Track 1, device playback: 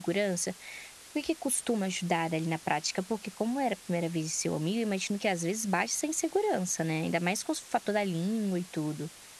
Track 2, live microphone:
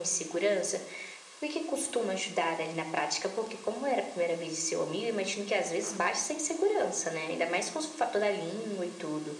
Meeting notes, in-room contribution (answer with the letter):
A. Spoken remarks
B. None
B